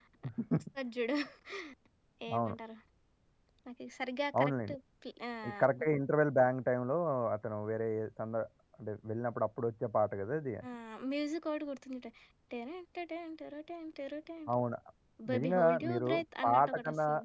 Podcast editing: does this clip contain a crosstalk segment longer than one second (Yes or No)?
Yes